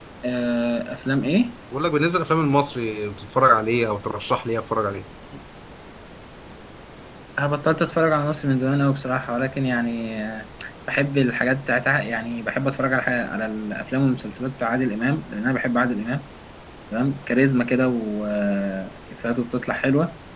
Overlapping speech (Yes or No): No